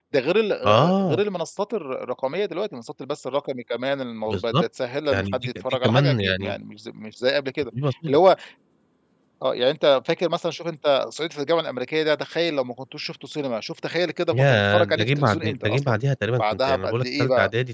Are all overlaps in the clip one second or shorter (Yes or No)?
No